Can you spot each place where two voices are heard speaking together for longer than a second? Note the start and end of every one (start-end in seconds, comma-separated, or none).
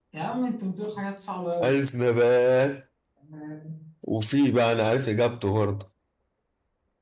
none